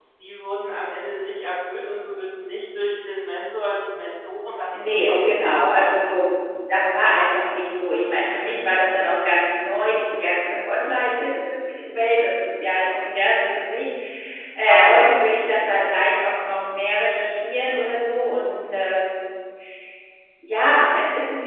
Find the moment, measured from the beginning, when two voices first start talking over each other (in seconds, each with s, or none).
4.7 s